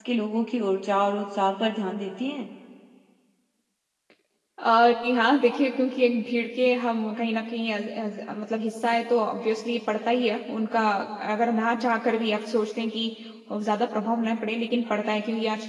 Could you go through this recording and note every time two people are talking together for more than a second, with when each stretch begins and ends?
none

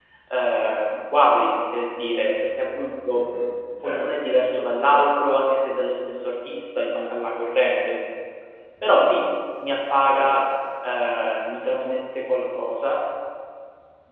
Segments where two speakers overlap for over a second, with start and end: none

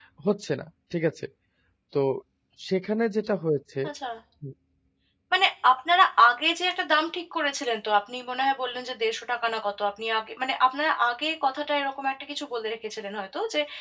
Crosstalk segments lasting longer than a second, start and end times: none

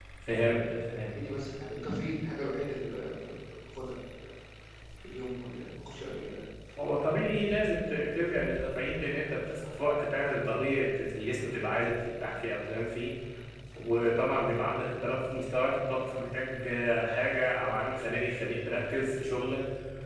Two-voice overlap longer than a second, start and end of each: none

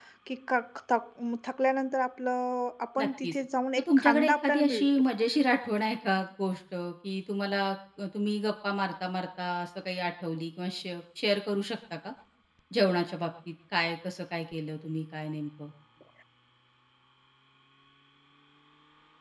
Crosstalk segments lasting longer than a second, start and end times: 3.8-5.0

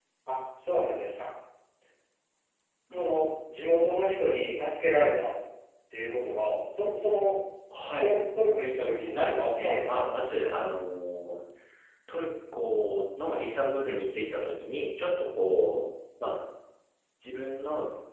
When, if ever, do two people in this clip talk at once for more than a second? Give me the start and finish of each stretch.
8.8-10.0

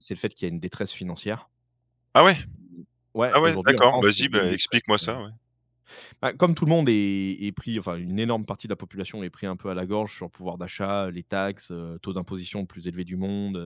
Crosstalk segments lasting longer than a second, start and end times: 3.3-4.8

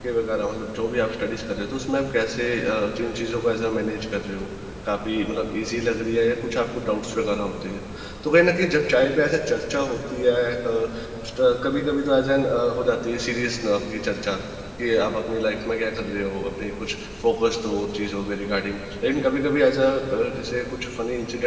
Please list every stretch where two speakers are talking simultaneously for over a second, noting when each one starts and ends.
none

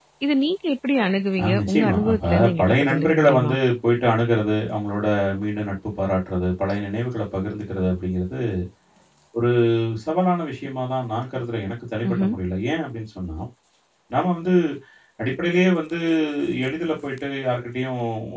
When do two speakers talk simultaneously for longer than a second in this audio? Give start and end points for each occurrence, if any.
1.6-3.5

